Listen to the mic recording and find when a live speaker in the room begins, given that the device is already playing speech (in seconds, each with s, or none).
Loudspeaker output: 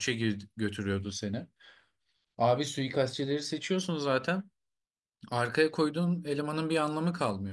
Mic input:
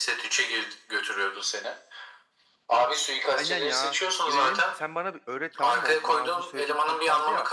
3.4 s